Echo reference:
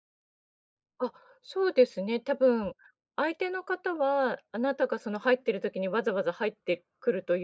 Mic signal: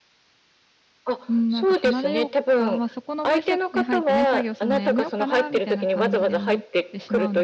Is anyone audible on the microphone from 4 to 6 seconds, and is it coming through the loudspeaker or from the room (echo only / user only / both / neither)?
both